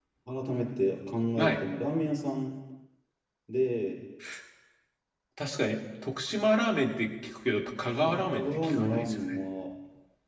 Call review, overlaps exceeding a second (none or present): present